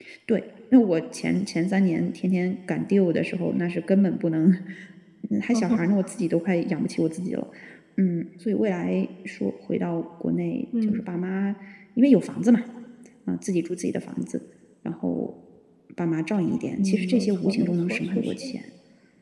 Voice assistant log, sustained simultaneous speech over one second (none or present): present